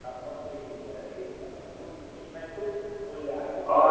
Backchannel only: No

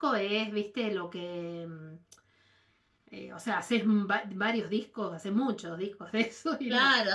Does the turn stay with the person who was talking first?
No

